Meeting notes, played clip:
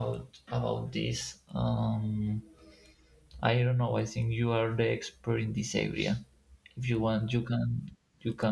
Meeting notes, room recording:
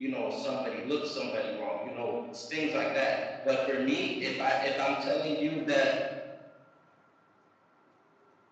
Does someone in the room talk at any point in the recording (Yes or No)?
Yes